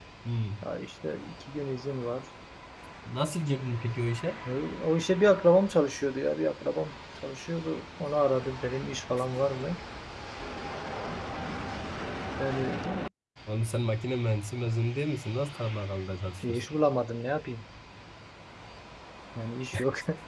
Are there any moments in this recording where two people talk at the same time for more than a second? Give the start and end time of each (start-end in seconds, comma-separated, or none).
none